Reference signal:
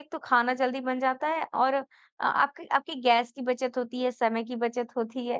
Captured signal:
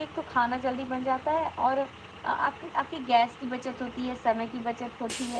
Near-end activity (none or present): none